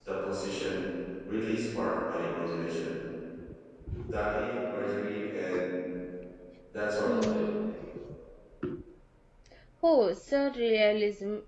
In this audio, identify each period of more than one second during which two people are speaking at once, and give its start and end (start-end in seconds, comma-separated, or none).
none